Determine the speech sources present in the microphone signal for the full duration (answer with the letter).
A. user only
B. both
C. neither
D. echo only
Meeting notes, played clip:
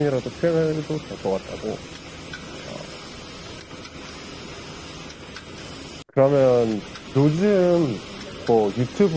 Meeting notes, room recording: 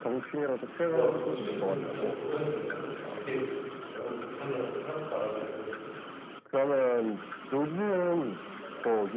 B